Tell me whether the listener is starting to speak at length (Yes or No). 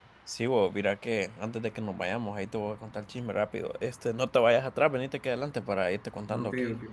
Yes